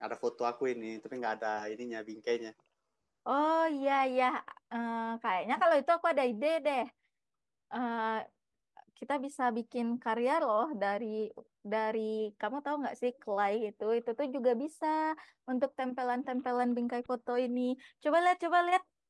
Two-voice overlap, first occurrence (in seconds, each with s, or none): none